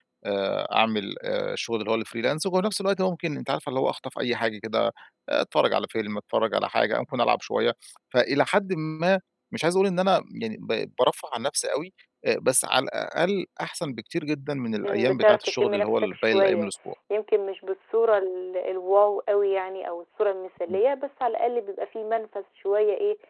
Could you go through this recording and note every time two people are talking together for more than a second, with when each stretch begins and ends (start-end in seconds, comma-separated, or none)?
14.8-16.7